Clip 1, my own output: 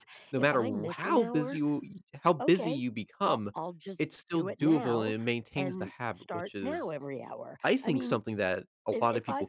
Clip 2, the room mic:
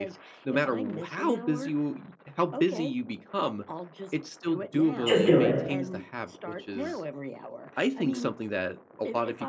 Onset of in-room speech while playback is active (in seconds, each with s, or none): 5.1 s